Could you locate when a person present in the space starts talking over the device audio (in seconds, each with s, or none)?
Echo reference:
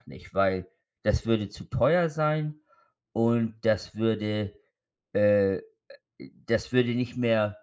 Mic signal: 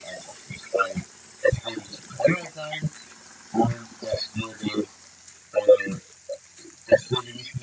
none